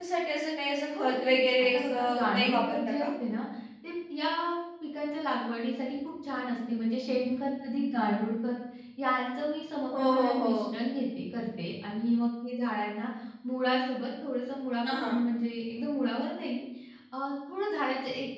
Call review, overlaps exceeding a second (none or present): present